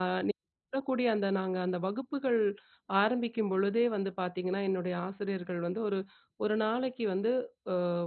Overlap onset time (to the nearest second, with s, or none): none